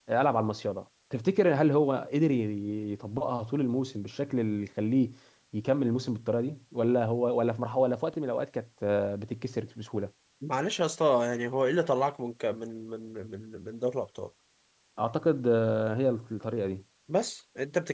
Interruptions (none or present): none